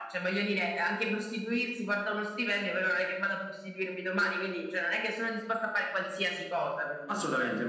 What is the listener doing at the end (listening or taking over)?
taking over